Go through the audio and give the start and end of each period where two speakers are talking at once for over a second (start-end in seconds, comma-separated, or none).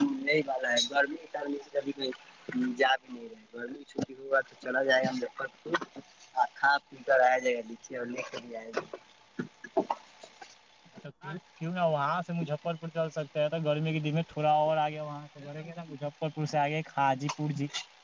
none